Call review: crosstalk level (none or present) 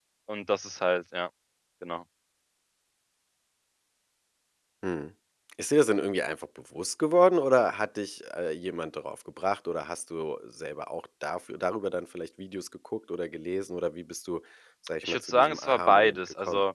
present